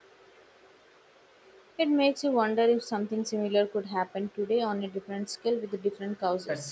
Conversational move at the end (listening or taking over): taking over